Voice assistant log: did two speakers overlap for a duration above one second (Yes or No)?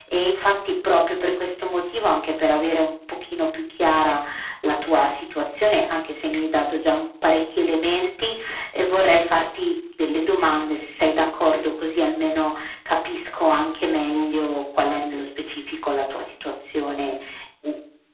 No